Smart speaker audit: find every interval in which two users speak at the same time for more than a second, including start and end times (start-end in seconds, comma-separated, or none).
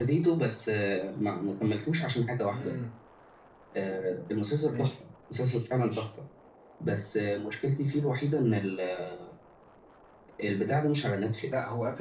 none